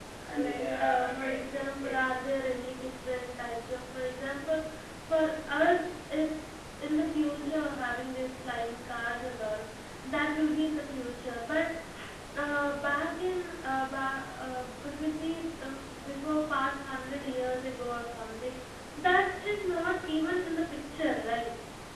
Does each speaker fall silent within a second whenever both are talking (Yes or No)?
No